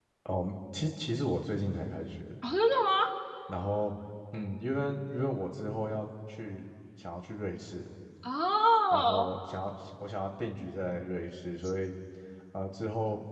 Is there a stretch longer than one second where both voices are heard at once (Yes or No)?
No